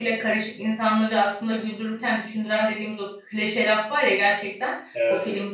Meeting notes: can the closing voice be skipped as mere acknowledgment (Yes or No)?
Yes